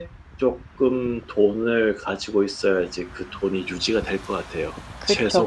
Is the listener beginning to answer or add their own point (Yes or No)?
Yes